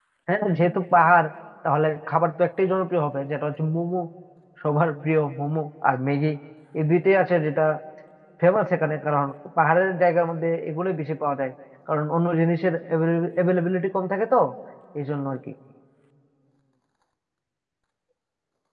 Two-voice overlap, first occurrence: none

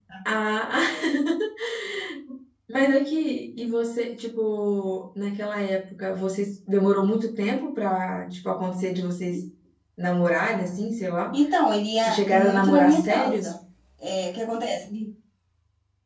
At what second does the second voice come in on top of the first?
12 s

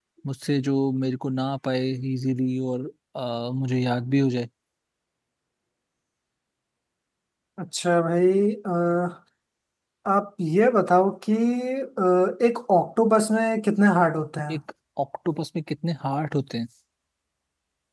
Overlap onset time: none

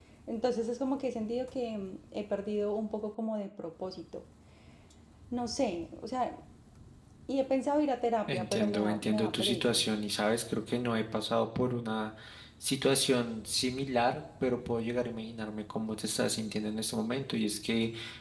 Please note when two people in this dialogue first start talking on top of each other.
8 s

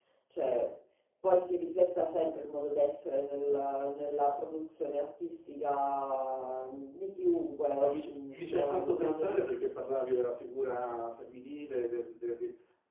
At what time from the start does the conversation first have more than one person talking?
8 s

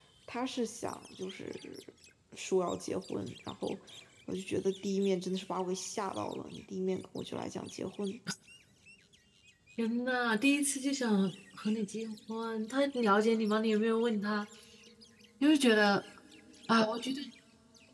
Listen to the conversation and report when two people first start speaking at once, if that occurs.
none

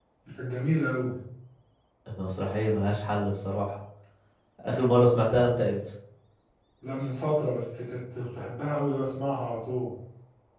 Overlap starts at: none

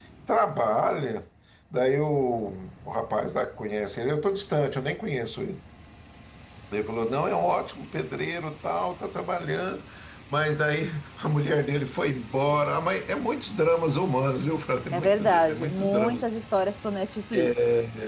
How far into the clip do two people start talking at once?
15 s

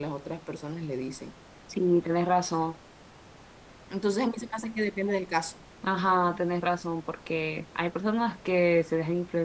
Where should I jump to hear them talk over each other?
none

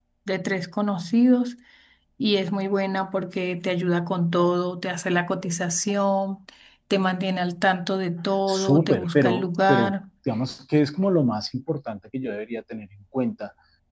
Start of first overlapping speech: 8 s

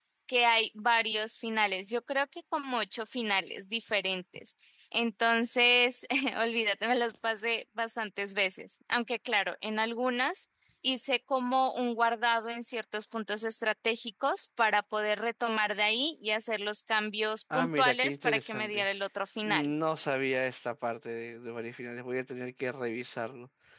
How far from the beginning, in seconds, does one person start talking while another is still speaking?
18 s

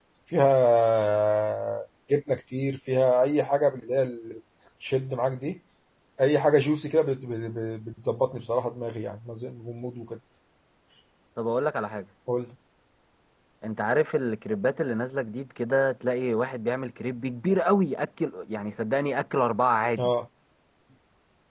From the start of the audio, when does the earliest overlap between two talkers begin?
none

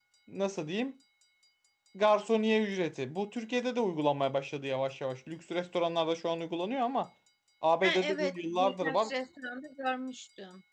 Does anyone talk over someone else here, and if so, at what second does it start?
8 s

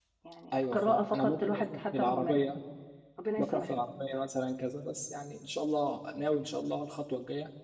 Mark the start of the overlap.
1 s

